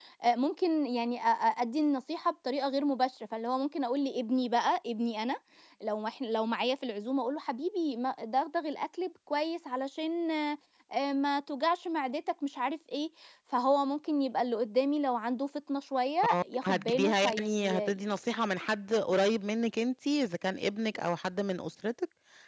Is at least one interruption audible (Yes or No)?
Yes